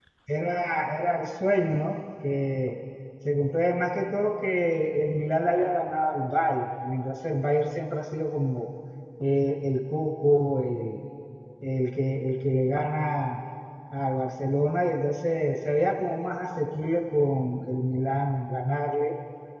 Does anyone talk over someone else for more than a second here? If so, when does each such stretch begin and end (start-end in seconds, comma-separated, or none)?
none